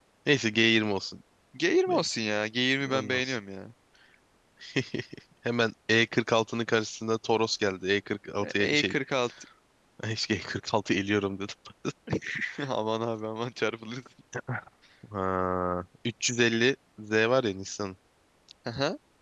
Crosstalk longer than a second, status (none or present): none